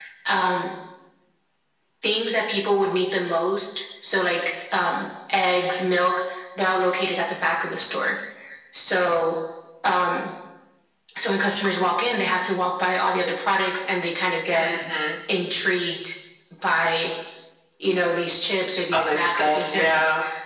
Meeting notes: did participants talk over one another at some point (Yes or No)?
Yes